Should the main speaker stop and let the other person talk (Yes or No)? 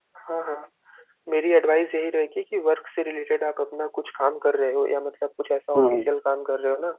No